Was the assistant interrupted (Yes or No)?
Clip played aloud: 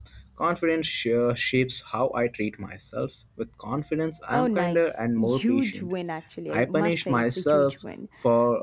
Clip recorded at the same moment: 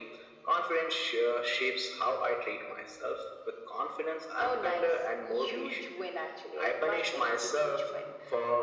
No